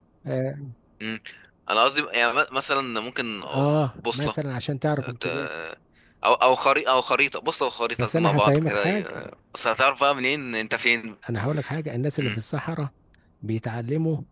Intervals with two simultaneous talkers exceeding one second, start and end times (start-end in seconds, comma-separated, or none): 8.0-9.3